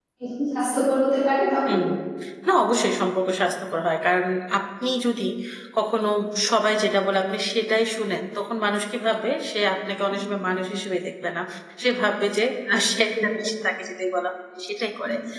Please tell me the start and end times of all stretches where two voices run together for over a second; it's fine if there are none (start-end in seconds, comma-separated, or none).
none